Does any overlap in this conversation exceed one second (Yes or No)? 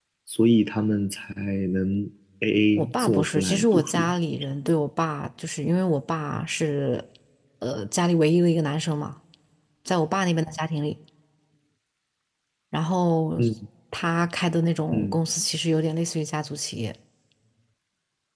Yes